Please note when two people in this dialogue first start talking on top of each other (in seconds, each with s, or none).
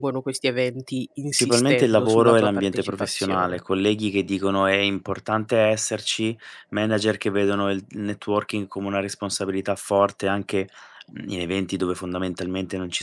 1.4 s